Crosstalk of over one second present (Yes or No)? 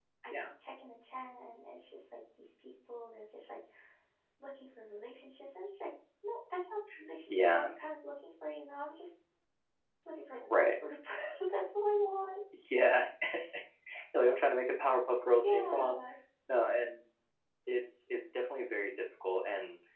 No